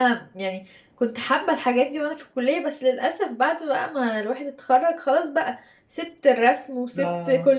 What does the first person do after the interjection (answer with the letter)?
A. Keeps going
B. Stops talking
A